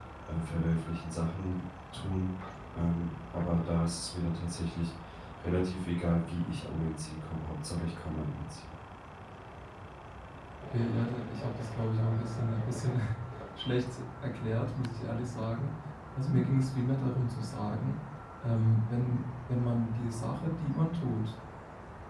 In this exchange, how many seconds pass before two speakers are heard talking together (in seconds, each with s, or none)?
none